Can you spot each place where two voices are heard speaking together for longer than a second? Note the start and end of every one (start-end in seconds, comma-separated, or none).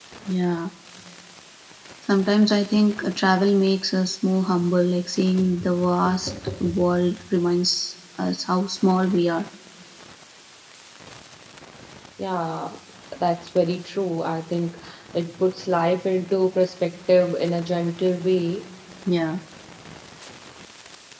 none